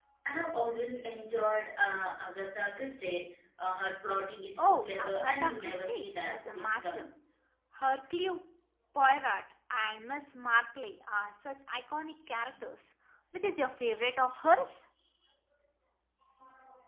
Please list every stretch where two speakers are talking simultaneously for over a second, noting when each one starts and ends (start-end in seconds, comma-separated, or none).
4.6-7.1